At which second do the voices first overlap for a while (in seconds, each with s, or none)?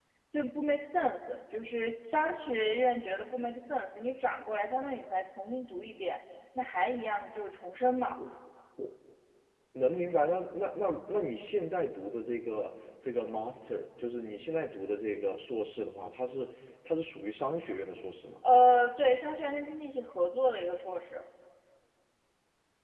none